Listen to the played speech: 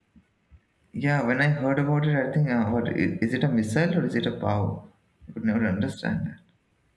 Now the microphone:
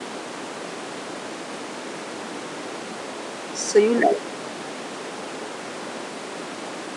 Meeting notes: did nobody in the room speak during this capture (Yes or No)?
No